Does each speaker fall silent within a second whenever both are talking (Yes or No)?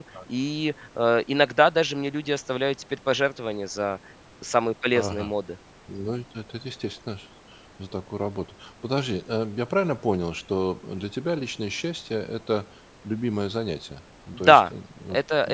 Yes